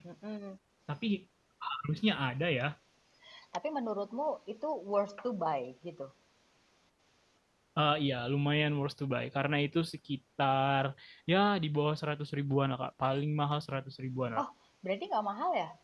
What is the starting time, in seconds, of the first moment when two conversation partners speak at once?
none

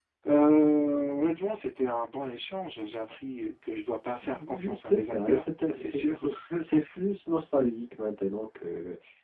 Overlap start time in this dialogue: 4.2 s

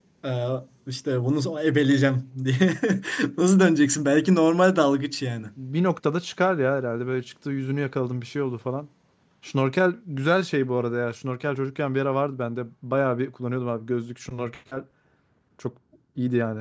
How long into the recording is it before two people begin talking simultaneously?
none

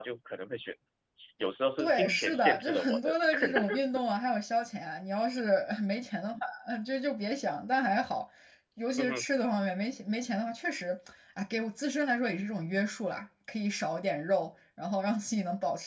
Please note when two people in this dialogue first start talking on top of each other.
1.8 s

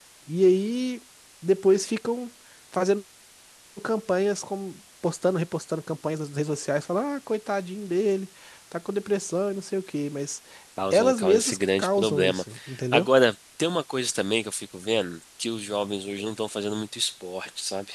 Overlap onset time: 10.9 s

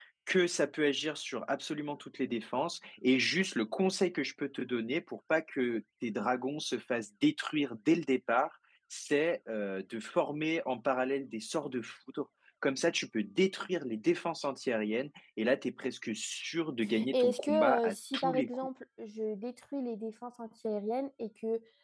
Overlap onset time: 17.1 s

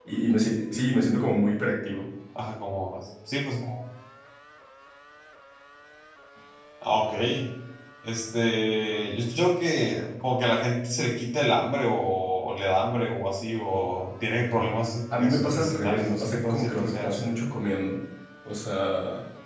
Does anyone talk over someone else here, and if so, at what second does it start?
15.1 s

